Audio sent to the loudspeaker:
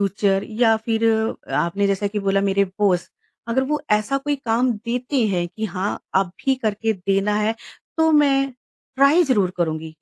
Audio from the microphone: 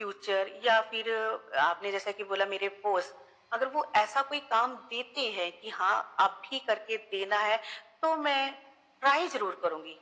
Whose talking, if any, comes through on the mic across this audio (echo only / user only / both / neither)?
echo only